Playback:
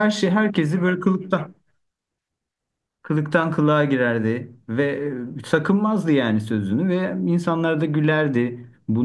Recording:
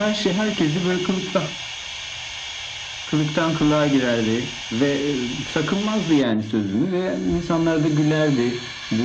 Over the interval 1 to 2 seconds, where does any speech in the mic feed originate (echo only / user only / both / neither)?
echo only